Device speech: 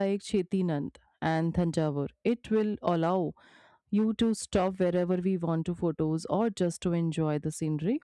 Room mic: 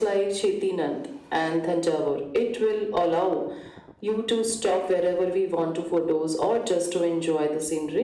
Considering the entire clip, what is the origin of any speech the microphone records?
echo only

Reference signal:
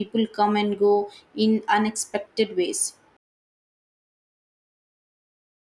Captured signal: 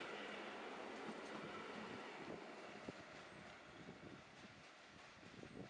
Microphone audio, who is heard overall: neither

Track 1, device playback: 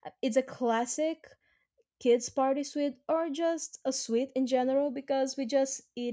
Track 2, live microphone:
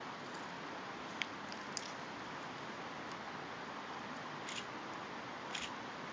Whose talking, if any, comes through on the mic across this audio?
neither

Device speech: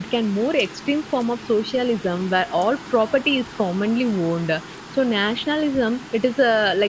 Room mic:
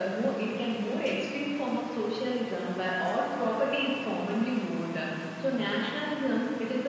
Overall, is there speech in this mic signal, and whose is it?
echo only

